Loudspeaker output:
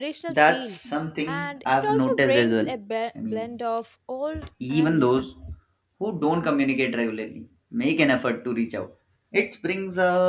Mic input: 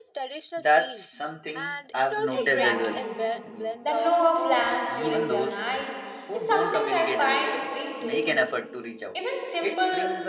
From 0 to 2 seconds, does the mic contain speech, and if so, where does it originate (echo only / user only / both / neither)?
echo only